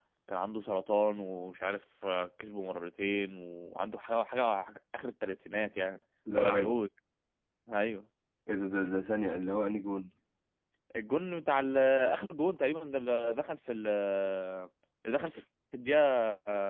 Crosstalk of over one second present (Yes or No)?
No